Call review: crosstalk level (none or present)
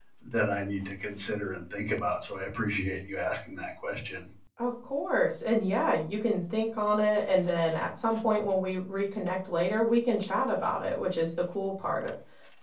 none